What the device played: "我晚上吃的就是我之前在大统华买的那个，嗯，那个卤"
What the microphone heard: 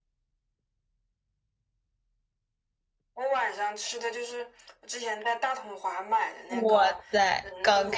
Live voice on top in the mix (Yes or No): Yes